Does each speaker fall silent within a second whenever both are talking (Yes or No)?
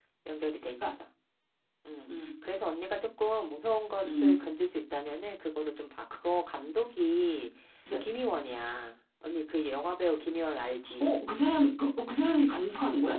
Yes